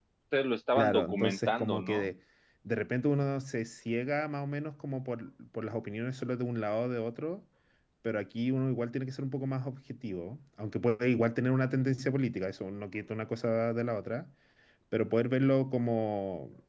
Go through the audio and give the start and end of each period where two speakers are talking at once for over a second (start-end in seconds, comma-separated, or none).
0.8-2.1